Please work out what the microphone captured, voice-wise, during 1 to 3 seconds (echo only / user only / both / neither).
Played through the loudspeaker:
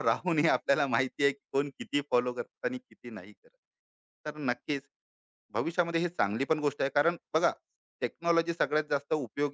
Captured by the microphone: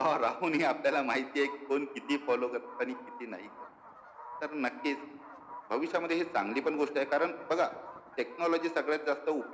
echo only